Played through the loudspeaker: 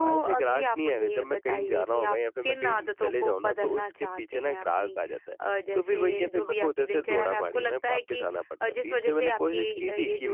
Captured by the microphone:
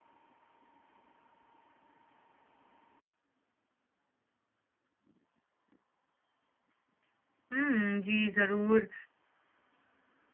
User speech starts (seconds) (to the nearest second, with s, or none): 8 s